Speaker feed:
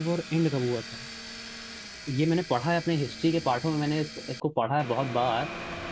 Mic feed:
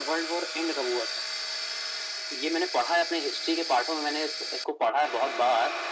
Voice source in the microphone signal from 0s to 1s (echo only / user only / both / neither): echo only